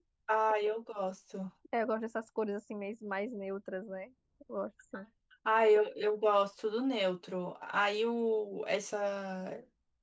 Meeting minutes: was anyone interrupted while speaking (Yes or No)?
No